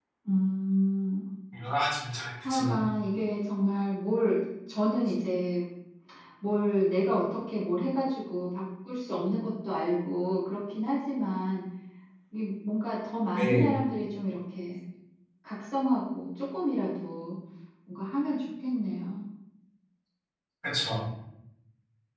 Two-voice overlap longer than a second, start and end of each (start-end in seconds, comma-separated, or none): none